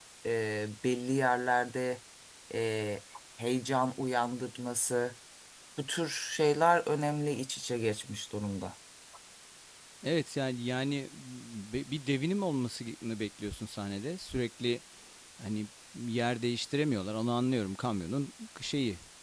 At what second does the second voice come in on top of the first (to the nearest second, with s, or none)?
none